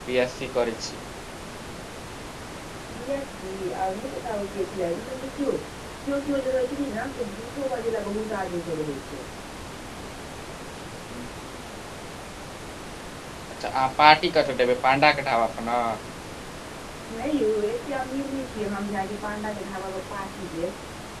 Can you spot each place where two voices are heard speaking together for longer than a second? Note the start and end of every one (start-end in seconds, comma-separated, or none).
none